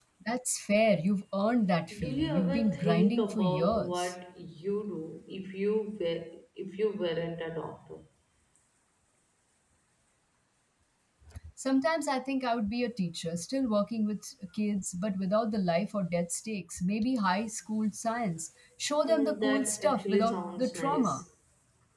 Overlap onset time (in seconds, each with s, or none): 2.0 s